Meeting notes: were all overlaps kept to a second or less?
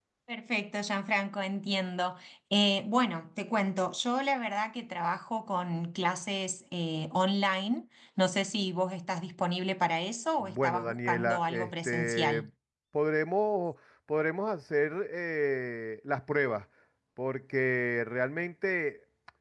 No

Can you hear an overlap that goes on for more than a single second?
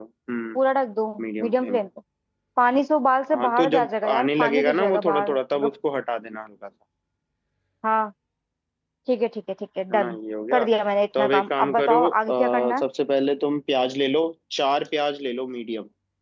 Yes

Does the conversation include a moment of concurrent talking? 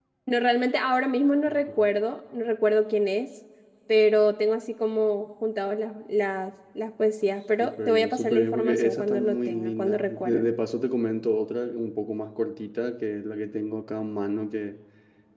Yes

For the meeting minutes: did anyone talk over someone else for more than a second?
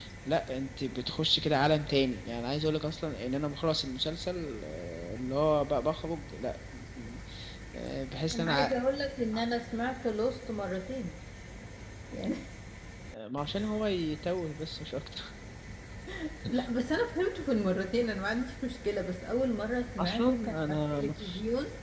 Yes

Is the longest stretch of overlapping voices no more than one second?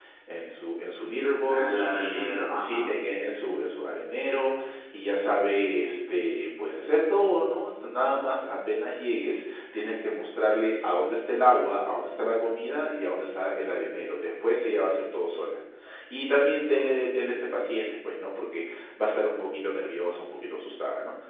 No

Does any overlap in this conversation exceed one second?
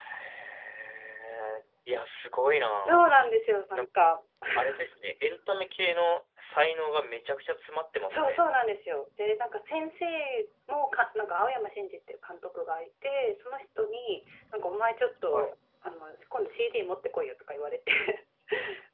No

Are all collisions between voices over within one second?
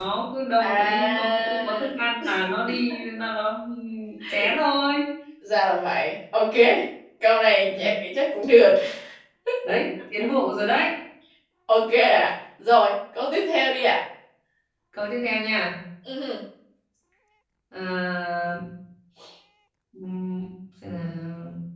No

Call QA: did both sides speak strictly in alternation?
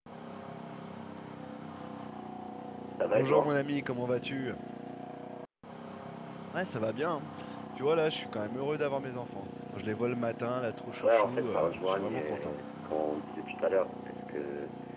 No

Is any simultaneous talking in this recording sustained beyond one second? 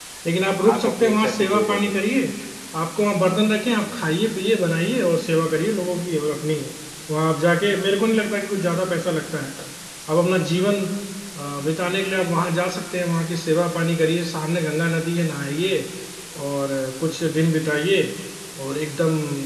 Yes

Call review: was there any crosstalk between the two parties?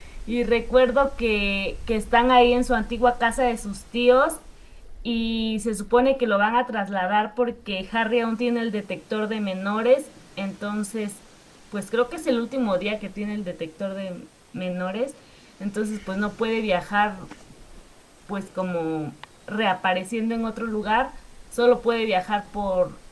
No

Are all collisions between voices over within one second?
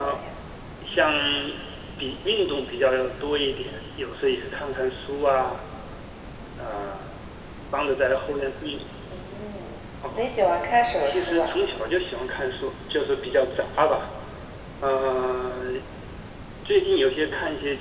Yes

